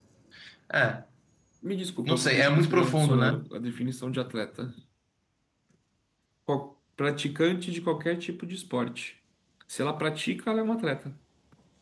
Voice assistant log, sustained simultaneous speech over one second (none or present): present